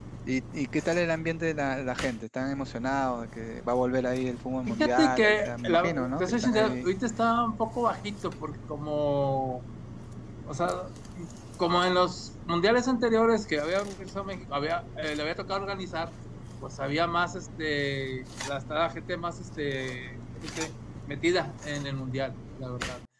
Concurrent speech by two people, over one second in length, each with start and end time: 4.7-6.9

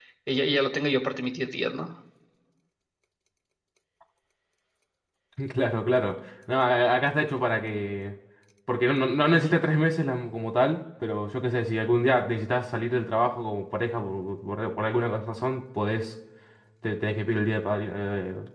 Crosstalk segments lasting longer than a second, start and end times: none

